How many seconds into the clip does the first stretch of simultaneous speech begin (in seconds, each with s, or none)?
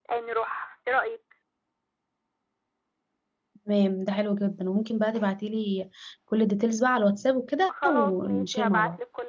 7.7 s